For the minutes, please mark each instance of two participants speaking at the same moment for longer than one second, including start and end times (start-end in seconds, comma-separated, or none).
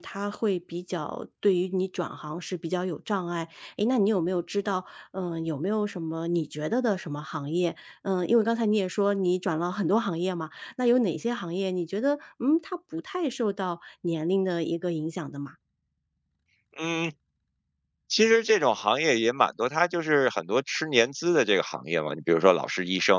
none